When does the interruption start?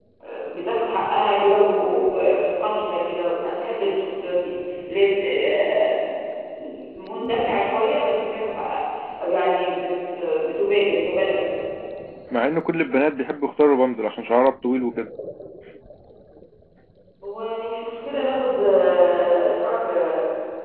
none

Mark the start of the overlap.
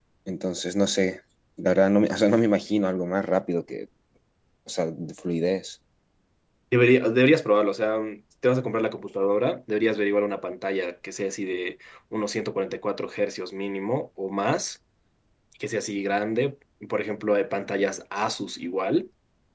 none

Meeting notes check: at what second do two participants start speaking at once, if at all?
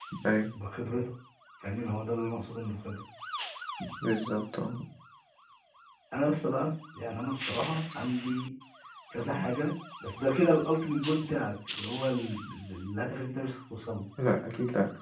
none

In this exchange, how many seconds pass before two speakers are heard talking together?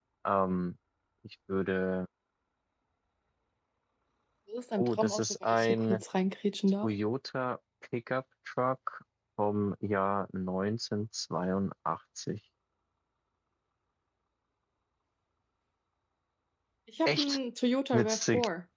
4.8 s

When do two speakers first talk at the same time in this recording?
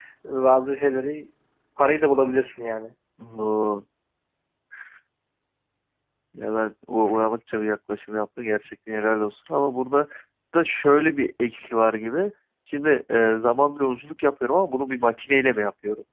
none

